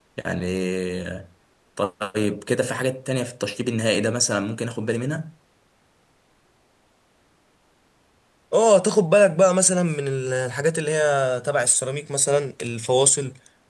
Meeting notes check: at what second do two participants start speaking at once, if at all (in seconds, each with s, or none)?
none